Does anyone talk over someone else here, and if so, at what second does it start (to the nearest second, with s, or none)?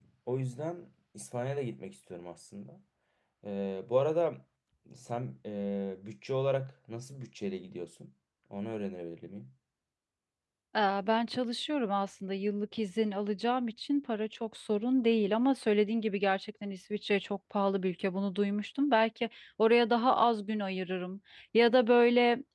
none